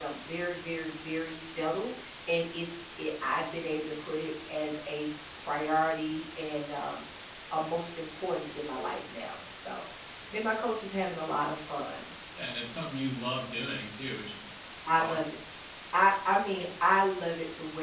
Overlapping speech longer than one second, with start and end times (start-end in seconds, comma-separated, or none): none